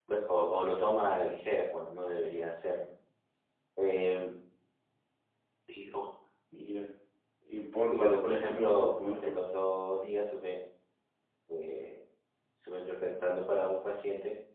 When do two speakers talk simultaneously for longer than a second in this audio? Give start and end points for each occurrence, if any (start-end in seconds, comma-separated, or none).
7.9-9.3